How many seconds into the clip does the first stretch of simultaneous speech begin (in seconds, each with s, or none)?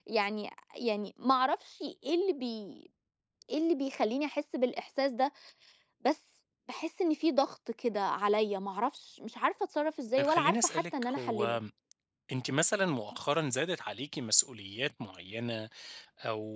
10.2 s